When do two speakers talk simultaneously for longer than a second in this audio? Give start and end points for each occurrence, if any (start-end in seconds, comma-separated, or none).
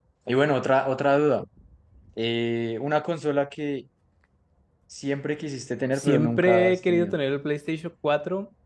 6.0-7.2